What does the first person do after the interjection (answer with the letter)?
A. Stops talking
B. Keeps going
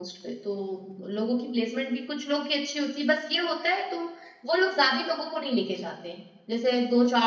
B